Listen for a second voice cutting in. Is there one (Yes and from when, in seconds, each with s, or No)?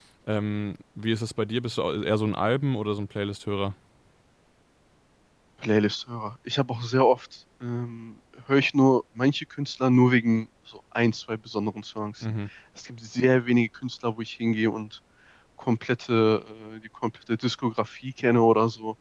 No